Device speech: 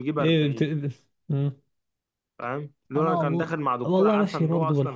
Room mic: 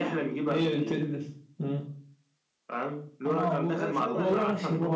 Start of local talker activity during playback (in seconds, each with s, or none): 3.7 s